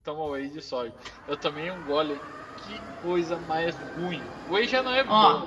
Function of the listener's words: taking over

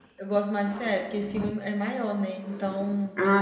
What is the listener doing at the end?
listening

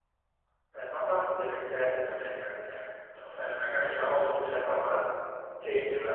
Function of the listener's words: listening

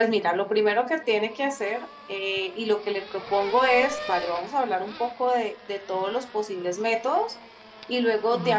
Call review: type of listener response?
listening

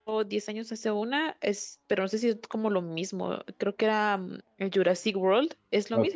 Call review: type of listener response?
taking over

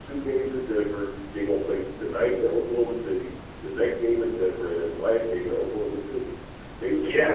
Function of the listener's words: taking over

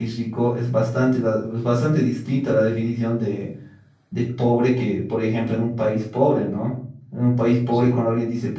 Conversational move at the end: listening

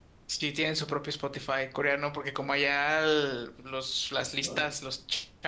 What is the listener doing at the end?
listening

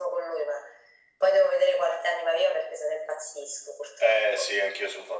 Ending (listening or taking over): taking over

